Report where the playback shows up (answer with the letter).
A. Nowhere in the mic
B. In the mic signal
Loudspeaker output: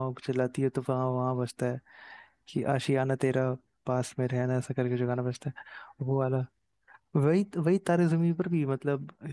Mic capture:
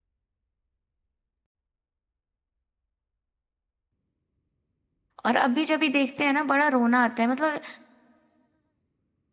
A